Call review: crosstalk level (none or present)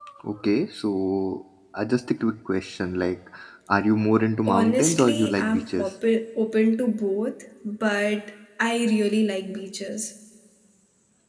present